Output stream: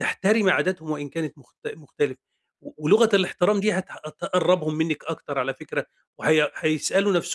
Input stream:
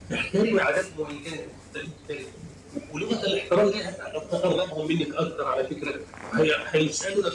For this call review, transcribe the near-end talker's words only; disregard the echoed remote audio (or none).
none